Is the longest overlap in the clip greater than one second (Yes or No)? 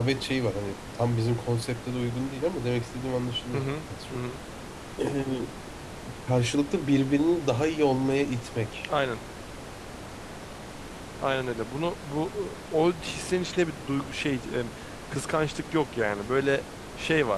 No